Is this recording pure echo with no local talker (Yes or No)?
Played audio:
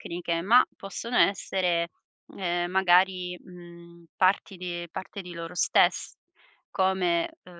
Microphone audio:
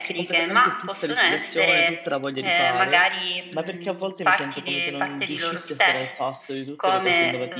No